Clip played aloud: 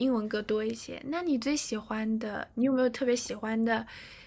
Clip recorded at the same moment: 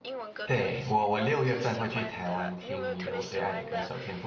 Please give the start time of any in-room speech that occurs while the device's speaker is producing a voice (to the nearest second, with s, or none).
0 s